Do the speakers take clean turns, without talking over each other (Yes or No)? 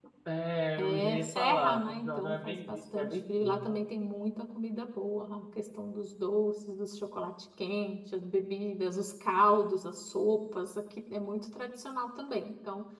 No